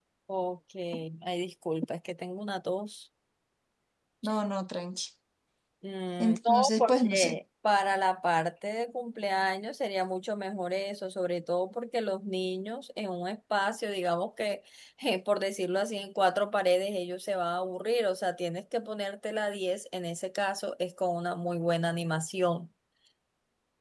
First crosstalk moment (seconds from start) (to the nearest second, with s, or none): 6 s